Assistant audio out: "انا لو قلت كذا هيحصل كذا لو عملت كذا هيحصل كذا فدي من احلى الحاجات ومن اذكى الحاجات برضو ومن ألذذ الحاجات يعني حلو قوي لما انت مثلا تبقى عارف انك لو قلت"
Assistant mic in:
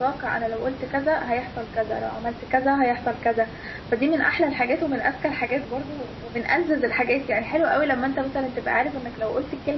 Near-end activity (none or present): none